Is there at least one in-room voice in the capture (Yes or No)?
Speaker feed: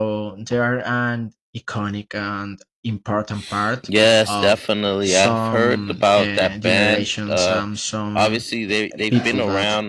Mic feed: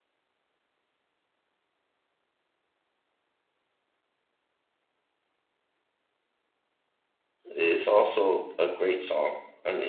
Yes